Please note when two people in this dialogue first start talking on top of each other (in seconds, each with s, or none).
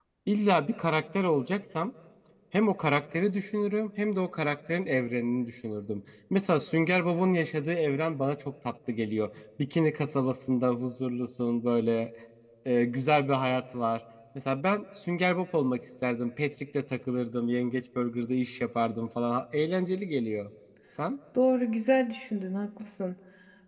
none